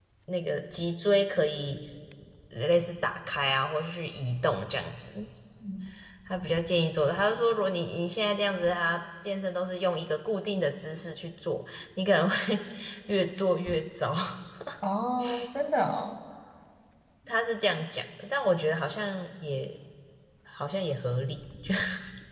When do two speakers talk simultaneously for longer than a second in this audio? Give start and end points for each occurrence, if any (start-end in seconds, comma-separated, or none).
none